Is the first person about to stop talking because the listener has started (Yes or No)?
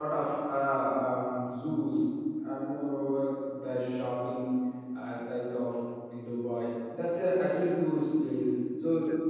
No